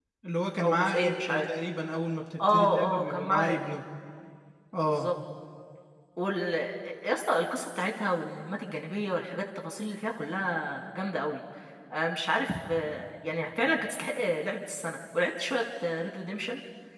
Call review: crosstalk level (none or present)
present